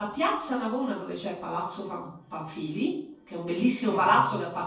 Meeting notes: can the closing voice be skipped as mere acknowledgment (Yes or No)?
Yes